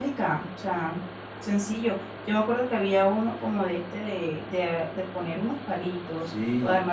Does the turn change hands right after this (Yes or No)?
Yes